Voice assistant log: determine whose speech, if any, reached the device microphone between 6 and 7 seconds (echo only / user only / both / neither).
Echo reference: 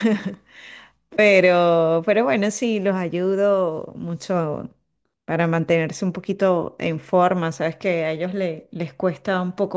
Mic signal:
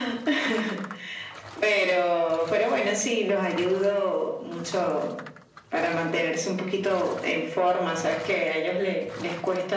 echo only